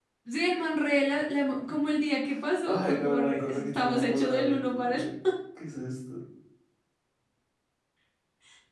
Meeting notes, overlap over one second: present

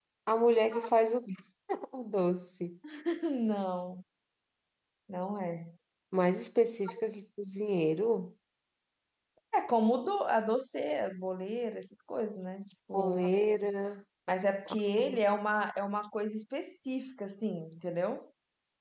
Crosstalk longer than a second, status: none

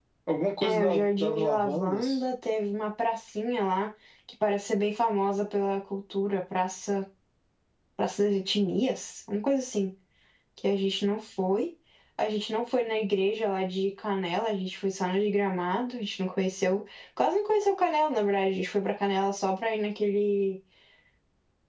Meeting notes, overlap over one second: present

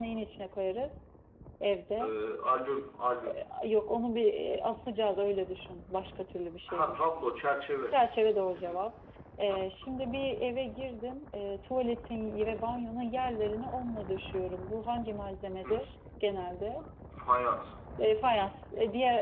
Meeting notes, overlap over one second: none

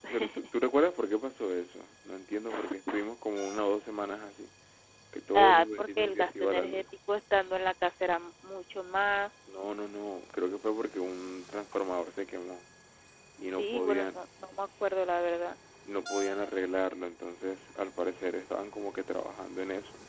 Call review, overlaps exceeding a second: present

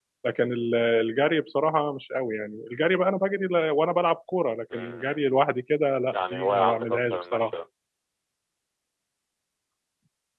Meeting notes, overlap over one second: present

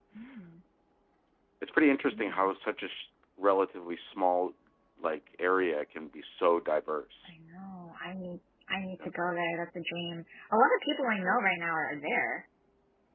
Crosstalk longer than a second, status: none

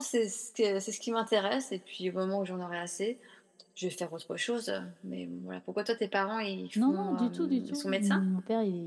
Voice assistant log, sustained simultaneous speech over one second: present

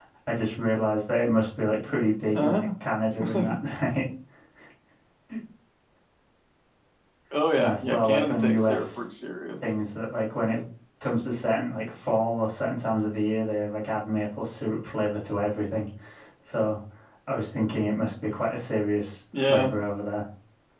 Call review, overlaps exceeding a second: present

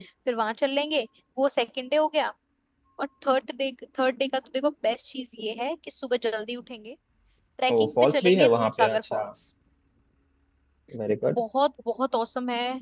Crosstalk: present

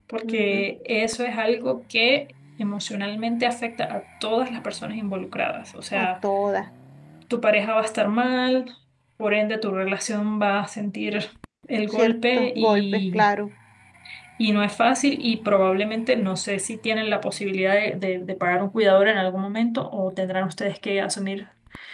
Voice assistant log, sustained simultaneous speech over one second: present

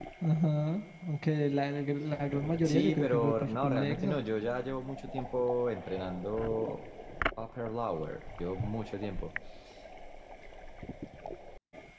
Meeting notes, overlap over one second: present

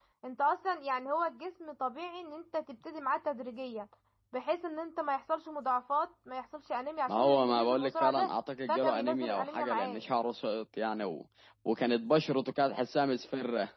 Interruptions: present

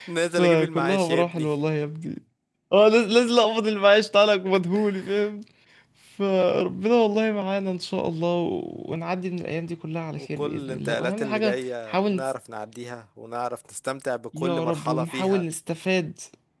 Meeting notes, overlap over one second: present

